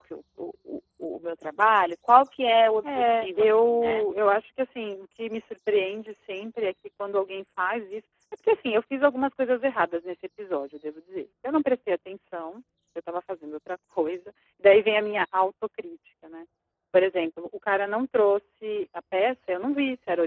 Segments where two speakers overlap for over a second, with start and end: 2.8-4.0

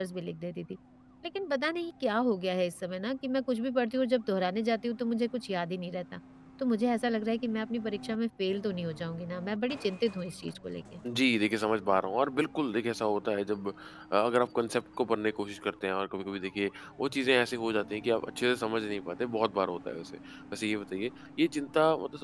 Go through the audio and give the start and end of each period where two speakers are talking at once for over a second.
none

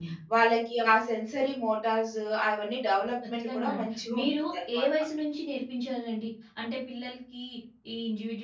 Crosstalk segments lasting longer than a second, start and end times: 3.3-4.9

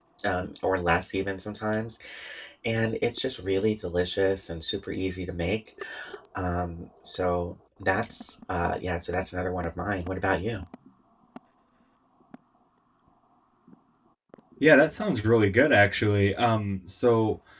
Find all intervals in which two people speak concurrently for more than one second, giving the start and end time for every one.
none

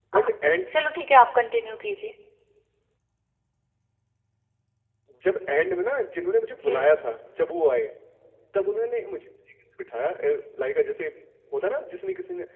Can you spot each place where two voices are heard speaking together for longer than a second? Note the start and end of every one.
none

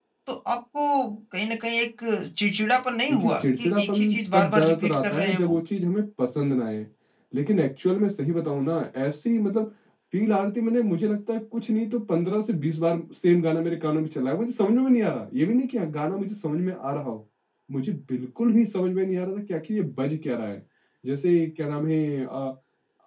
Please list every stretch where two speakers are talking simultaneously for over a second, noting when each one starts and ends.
3.1-5.6

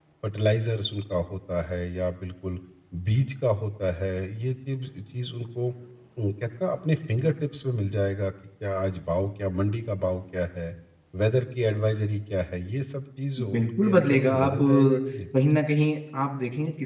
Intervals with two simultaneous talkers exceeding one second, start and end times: 13.5-15.0

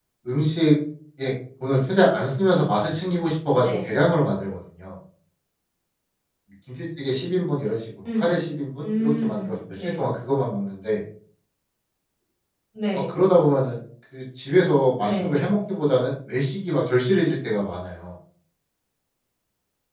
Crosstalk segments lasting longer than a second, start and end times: 8.8-10.1

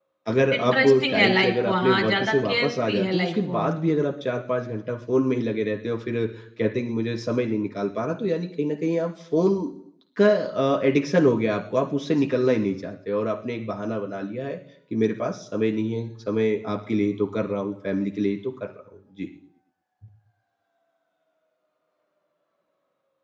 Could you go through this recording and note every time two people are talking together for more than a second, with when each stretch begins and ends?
0.5-3.8

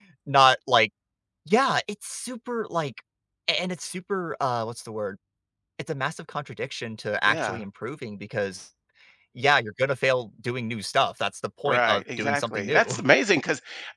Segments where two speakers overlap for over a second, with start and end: 11.7-13.0

